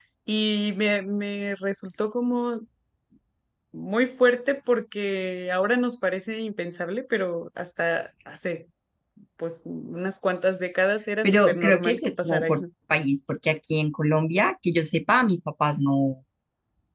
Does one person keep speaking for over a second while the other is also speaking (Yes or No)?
Yes